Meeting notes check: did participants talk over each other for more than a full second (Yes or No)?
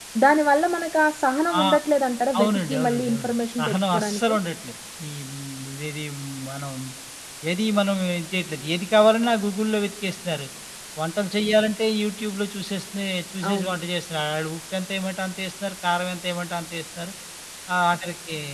Yes